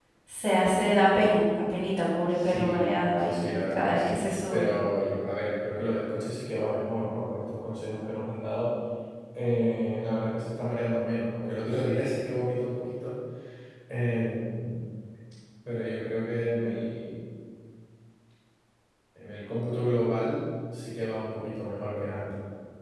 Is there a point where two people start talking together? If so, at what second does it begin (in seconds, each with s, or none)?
2.3 s